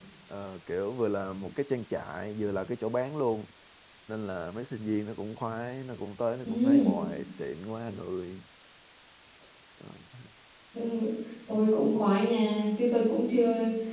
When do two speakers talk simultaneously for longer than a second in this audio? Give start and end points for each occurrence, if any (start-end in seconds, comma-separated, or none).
none